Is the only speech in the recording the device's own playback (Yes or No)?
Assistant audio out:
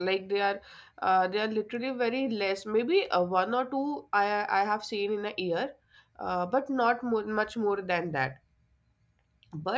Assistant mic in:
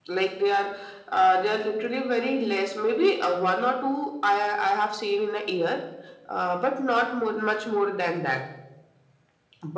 Yes